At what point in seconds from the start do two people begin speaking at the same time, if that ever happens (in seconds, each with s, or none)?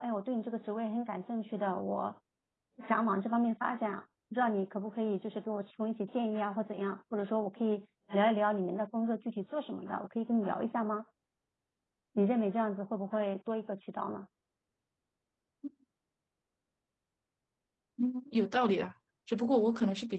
none